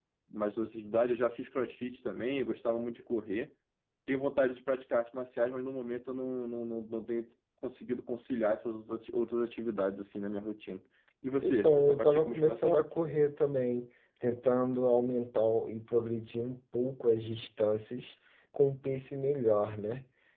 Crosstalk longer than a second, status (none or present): present